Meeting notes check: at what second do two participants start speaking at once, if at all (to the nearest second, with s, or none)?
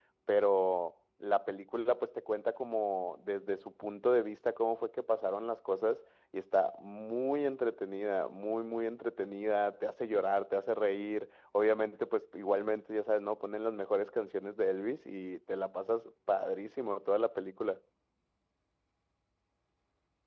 none